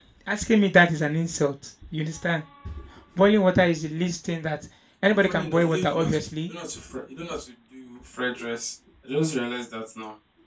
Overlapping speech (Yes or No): Yes